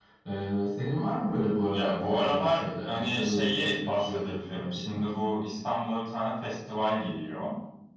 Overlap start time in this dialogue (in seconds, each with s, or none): 1.7 s